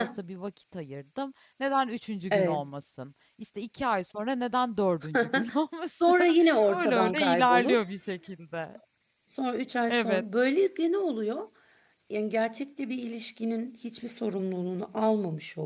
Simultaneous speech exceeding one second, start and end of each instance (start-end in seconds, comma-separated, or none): 6.0-7.8